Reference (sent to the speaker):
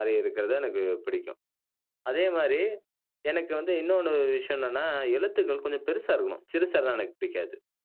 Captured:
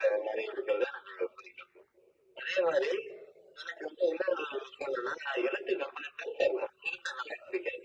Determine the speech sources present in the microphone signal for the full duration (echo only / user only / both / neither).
echo only